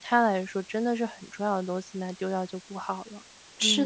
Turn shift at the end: Yes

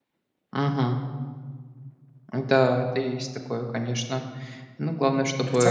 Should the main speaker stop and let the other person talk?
Yes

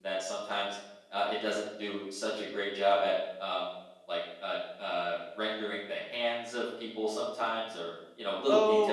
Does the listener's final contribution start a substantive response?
Yes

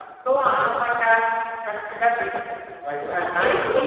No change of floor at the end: No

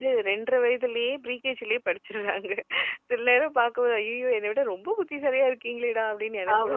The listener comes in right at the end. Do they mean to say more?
Yes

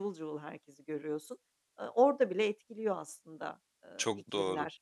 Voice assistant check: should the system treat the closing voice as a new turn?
Yes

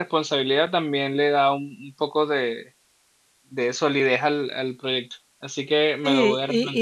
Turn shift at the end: Yes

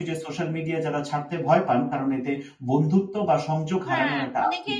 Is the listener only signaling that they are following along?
No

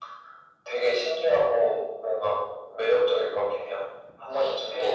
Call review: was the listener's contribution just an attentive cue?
No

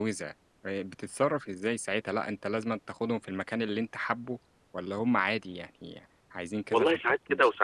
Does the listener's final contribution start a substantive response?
Yes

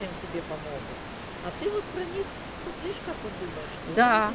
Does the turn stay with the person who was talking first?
No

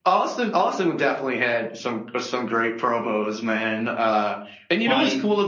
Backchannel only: Yes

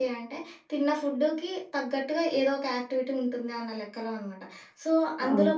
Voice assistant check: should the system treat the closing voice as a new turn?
No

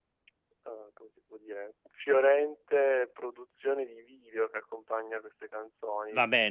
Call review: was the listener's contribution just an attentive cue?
No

